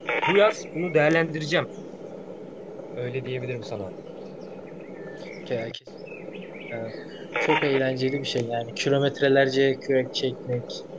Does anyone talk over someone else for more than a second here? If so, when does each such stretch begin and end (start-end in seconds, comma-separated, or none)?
none